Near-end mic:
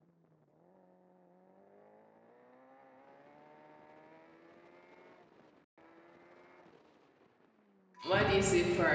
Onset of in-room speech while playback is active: 8.0 s

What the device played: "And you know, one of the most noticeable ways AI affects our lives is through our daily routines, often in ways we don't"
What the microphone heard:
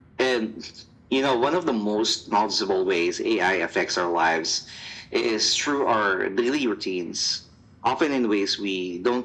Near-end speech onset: none

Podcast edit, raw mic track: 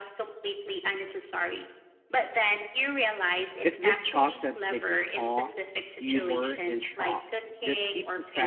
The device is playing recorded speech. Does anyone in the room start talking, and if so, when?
3.6 s

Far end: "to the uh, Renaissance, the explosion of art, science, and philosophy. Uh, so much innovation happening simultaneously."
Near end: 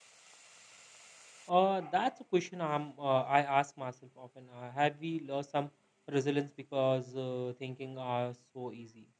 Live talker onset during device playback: 1.5 s

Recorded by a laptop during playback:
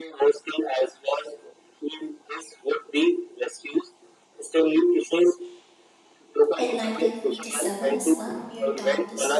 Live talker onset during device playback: 6.5 s

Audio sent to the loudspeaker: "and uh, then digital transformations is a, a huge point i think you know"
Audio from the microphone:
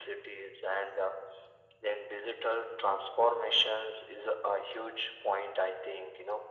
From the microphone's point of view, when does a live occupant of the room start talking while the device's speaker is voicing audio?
none

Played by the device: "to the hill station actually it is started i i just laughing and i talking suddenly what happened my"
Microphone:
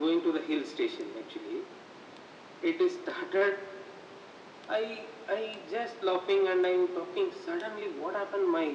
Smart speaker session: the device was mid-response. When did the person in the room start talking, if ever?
none

